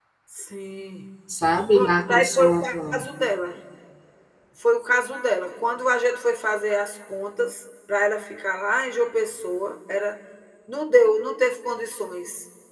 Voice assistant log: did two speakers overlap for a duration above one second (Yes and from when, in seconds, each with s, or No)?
Yes, from 1.7 s